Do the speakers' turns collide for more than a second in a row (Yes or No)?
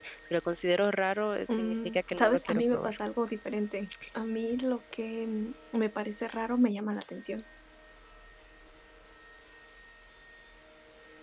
Yes